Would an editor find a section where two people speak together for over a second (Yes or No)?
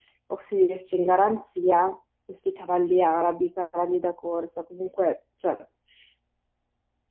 No